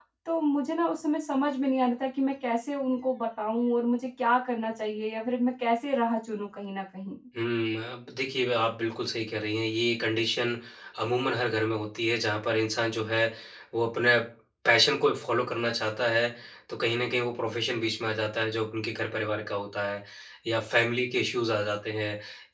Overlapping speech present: No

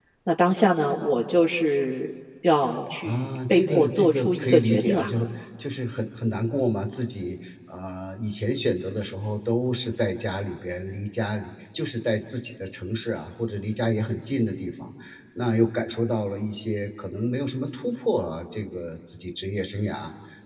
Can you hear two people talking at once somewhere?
Yes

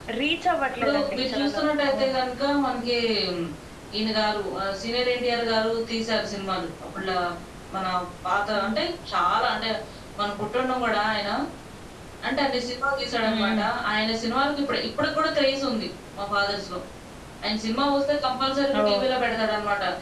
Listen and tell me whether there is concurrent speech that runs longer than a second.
Yes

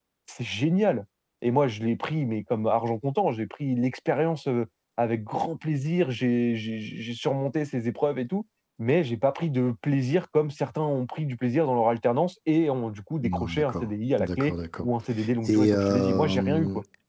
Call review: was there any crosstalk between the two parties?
Yes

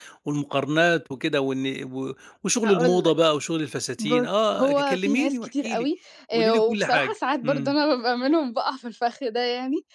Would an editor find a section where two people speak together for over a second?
Yes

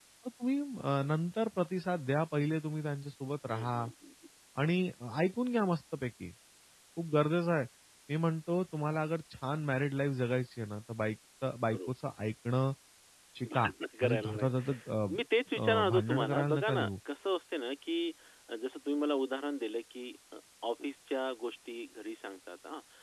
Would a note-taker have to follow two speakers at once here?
Yes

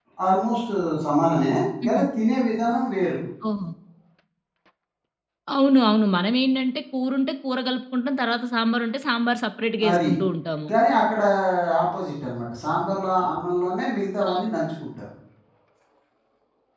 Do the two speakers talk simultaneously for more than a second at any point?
No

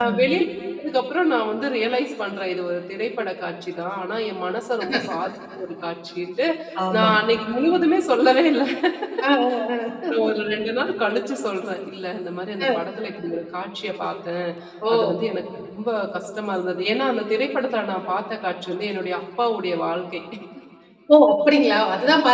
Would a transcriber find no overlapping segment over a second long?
Yes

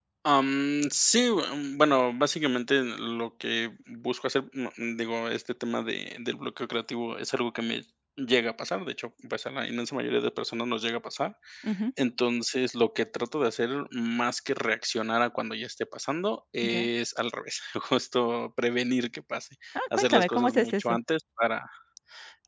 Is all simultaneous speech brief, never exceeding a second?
No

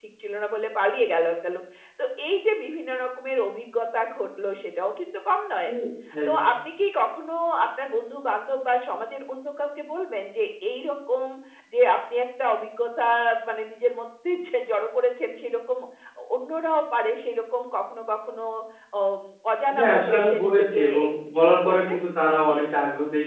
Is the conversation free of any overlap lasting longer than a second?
No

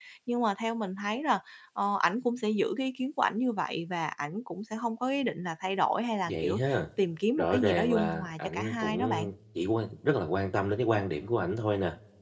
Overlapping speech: Yes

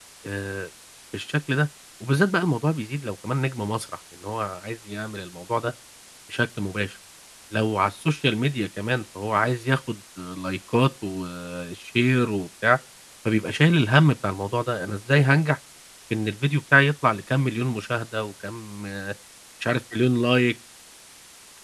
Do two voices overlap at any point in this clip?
No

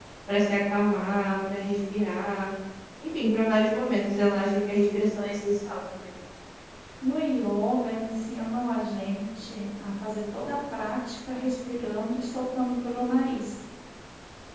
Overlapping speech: No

